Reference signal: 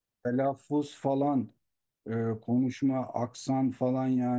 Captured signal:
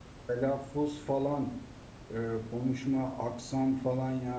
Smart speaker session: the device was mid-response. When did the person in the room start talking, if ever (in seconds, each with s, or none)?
none